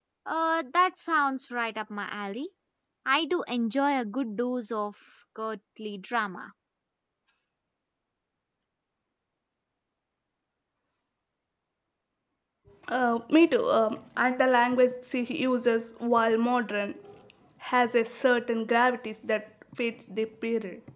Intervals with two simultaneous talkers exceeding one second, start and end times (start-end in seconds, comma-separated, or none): none